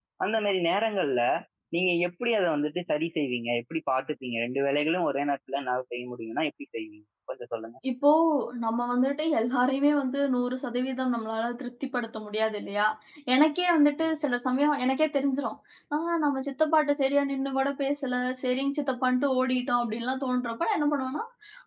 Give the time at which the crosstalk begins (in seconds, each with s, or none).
none